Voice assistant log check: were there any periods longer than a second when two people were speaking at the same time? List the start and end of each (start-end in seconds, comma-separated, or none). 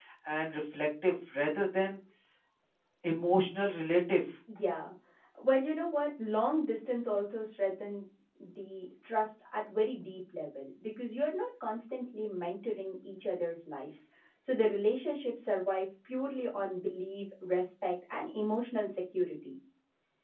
none